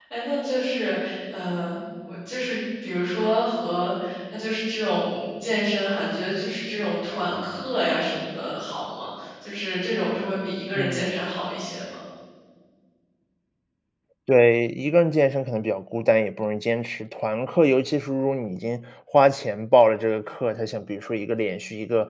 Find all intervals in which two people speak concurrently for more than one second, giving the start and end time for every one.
none

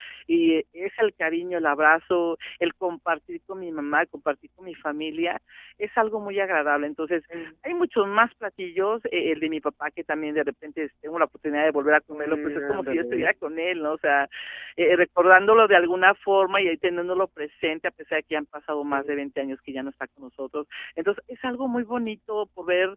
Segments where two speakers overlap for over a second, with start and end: 12.1-13.3

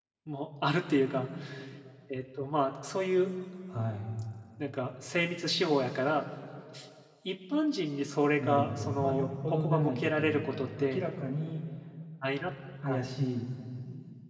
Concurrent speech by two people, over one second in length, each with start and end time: 8.4-11.0

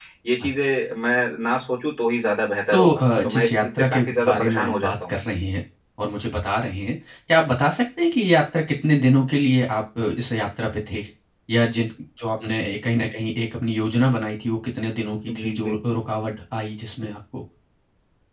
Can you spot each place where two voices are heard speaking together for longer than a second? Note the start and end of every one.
2.7-5.1

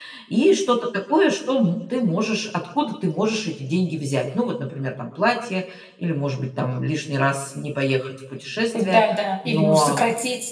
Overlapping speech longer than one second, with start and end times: none

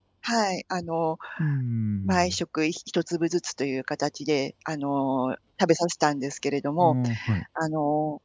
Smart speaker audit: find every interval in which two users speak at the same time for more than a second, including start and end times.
none

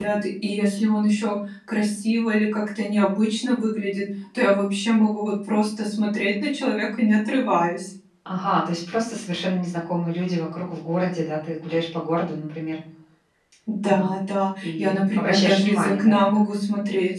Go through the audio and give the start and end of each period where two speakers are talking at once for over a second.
14.6-16.1

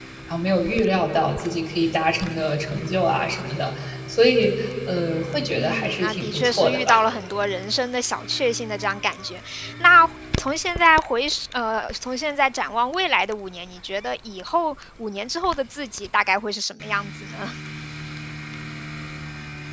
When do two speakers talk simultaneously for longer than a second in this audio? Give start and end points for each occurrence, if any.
5.5-7.0

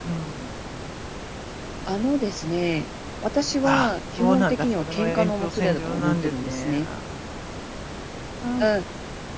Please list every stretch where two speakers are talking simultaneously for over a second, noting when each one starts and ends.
3.6-6.9

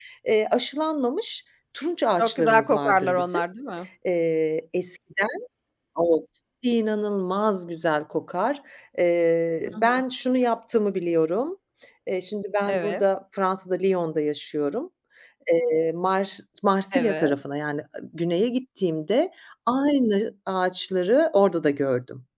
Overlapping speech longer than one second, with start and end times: 2.2-3.4

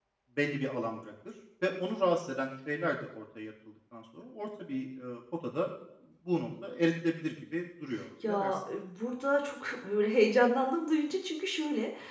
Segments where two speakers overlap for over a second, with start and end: none

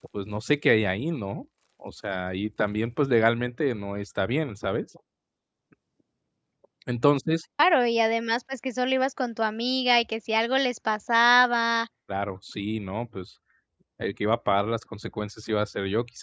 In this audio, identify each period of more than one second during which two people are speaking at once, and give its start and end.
none

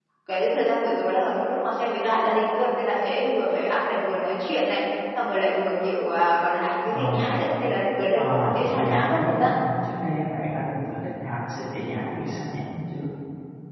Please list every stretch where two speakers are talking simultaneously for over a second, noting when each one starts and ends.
8.1-9.5

